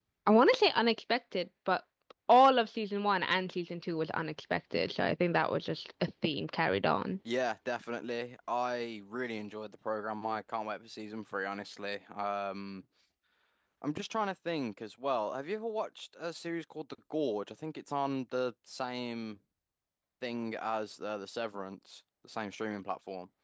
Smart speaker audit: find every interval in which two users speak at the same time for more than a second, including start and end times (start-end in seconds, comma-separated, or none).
none